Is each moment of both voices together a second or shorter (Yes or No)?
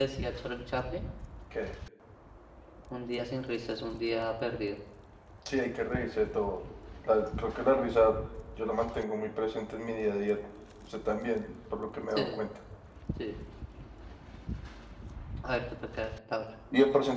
Yes